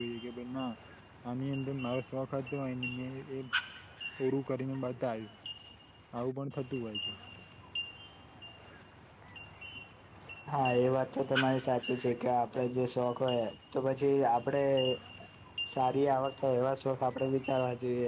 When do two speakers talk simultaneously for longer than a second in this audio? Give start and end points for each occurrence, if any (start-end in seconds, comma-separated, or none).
none